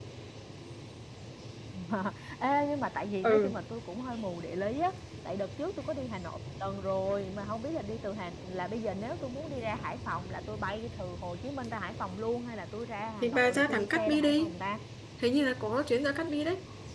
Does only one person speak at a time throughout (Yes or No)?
No